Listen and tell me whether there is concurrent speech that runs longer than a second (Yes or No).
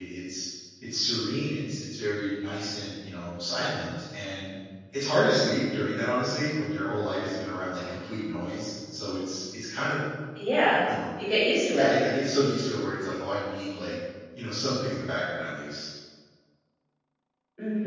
No